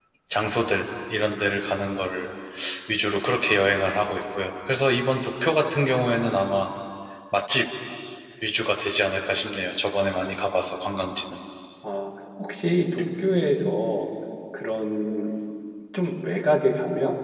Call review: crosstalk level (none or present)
none